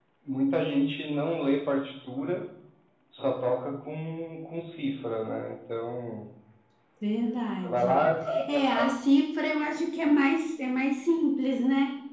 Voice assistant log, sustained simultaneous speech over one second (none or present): none